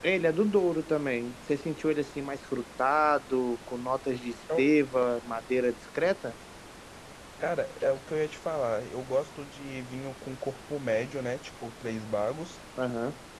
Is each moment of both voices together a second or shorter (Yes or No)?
Yes